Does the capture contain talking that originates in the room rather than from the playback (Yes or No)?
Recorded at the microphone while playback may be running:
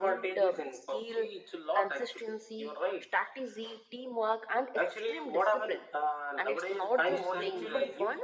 Yes